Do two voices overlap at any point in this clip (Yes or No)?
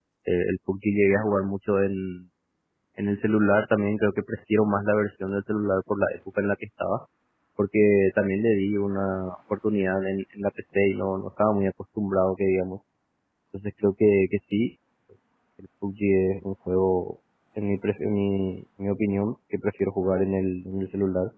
No